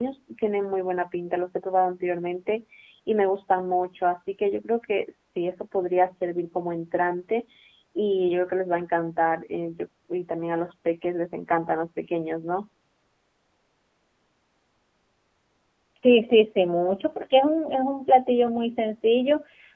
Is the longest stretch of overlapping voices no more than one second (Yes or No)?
Yes